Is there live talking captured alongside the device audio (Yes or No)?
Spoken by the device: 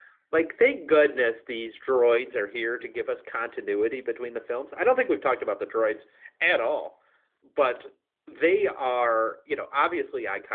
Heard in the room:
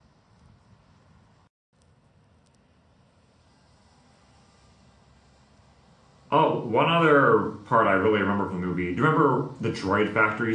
Yes